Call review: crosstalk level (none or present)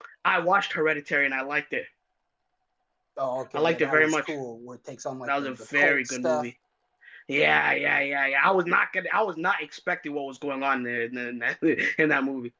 present